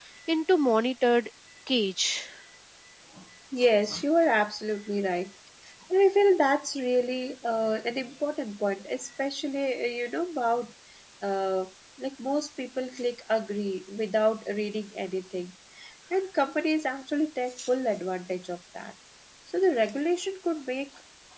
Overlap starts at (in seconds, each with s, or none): none